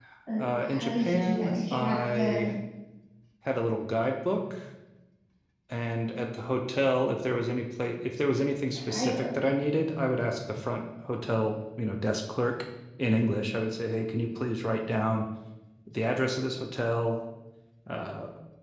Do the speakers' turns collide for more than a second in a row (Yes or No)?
Yes